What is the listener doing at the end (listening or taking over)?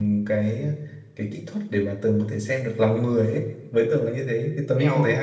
taking over